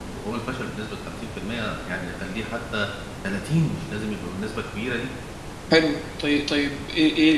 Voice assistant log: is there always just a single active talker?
Yes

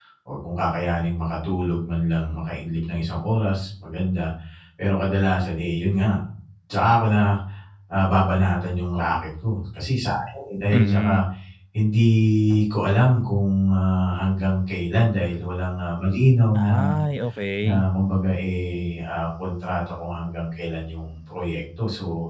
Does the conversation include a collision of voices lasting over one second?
No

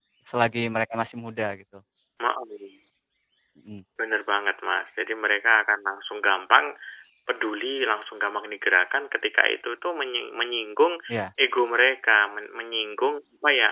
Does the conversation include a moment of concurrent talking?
No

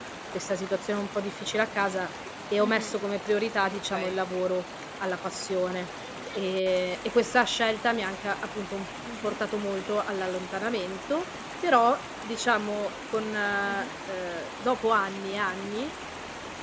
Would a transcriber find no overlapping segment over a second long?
Yes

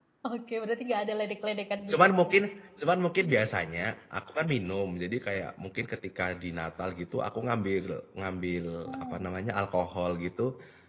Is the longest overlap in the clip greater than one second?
No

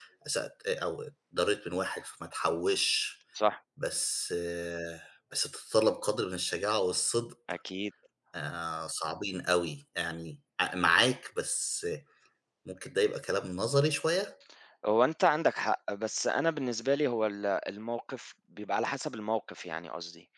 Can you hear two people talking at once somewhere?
No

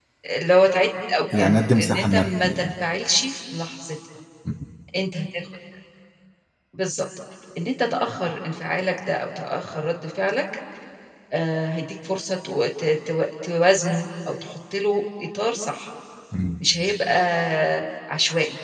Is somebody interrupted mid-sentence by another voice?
Yes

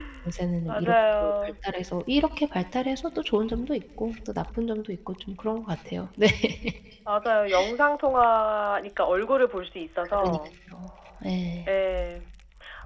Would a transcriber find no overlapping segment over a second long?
Yes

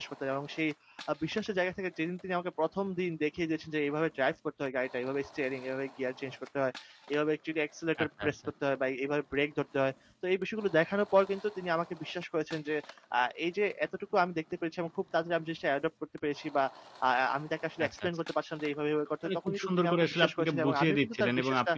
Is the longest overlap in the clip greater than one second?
Yes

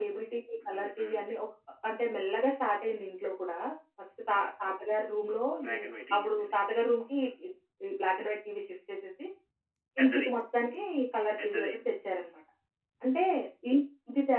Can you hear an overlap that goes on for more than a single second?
No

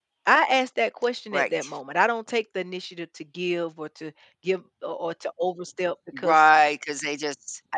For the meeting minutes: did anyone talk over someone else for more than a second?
No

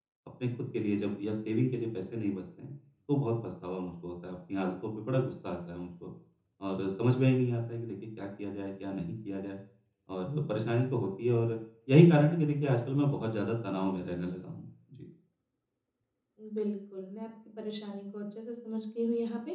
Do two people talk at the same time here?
No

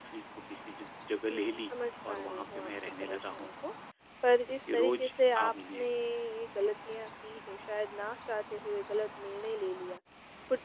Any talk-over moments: Yes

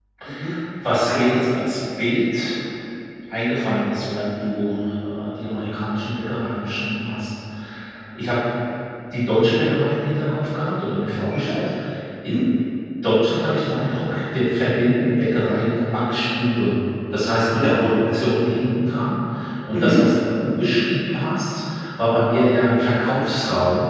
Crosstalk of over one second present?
No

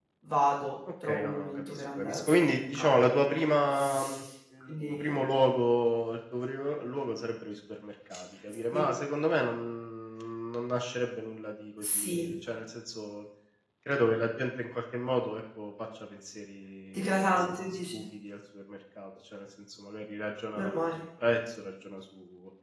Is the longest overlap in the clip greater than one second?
Yes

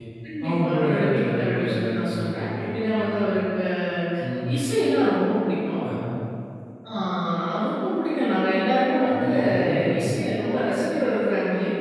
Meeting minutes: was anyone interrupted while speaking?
Yes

